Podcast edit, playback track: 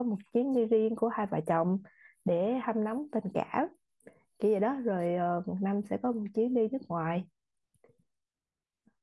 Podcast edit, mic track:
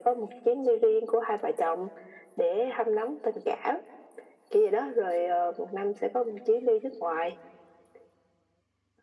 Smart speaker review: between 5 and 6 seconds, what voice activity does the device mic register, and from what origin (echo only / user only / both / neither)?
echo only